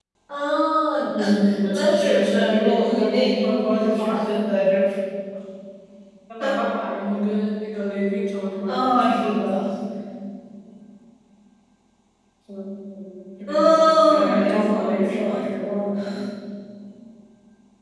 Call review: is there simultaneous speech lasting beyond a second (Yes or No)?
Yes